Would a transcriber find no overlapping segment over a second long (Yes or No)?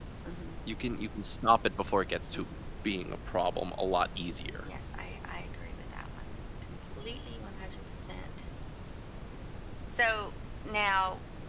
Yes